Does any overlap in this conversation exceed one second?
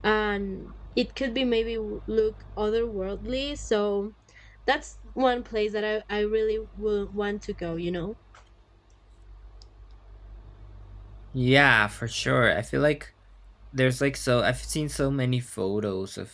No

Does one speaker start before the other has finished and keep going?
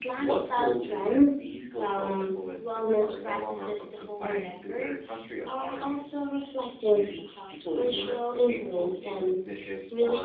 Yes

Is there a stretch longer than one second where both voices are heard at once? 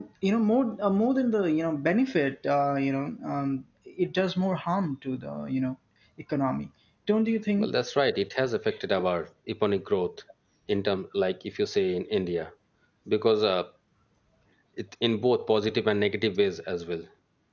No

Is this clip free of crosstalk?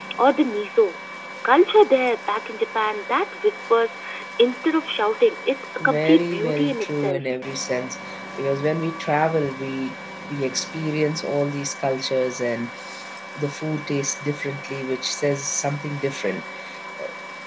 No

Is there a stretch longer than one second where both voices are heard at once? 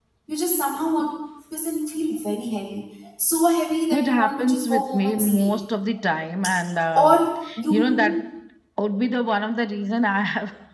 Yes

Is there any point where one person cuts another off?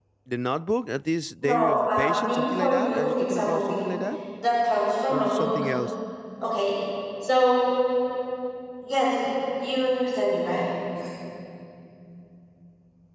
Yes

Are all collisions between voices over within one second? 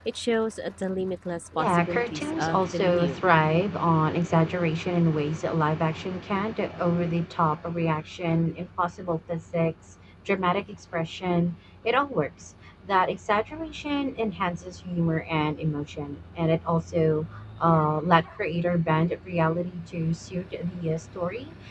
No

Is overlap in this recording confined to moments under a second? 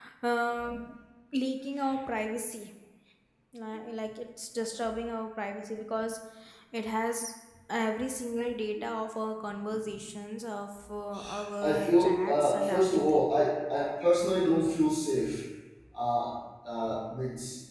No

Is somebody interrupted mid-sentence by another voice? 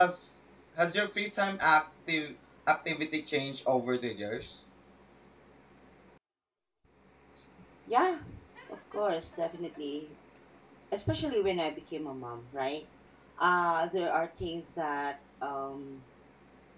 No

